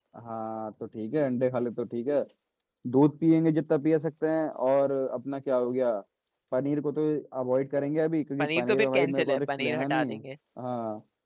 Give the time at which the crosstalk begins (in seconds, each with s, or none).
8.4 s